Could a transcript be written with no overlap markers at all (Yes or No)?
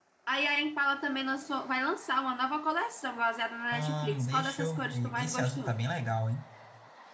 No